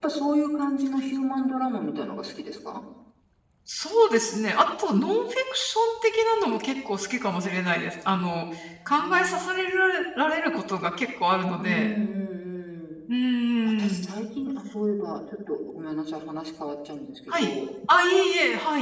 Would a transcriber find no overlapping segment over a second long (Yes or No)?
Yes